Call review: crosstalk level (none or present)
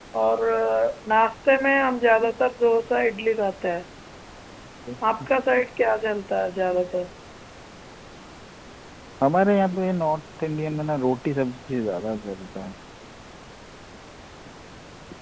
none